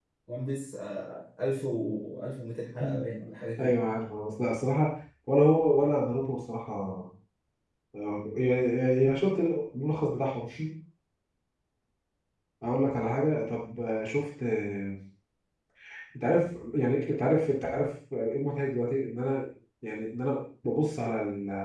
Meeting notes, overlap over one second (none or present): none